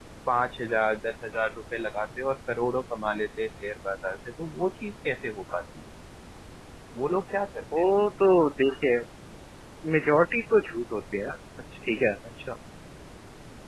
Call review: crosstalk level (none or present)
none